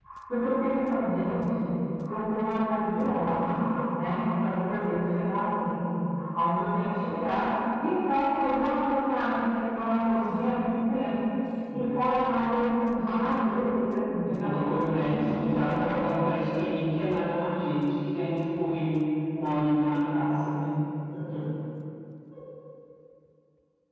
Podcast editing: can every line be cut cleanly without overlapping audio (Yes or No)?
No